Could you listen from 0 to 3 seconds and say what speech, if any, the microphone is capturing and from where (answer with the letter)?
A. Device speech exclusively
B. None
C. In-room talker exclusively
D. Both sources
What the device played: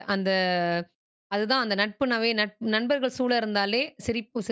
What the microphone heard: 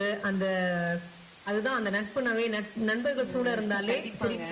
A